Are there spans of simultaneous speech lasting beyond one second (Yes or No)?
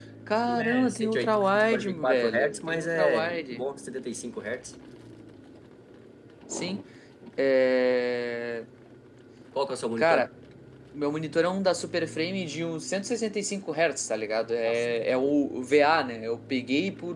Yes